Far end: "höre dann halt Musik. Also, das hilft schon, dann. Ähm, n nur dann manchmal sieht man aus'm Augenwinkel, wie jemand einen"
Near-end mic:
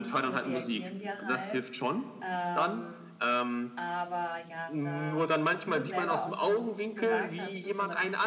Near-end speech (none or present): present